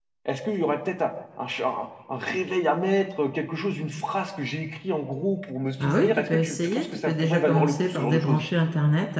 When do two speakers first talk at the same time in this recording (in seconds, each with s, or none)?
5.8 s